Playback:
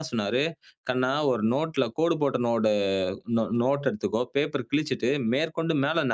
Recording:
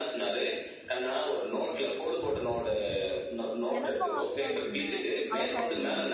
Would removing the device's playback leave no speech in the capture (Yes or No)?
No